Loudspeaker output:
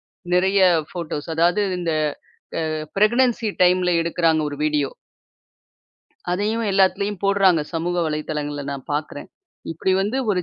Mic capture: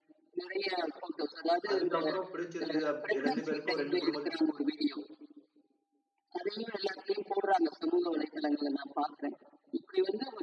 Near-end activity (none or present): present